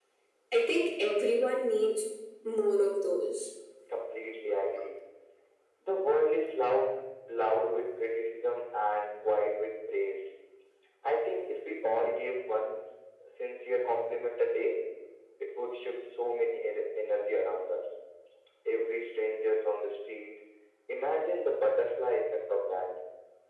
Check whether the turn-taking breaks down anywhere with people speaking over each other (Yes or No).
No